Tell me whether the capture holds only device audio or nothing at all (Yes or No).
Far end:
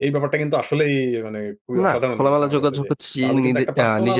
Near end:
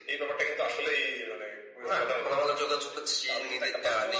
Yes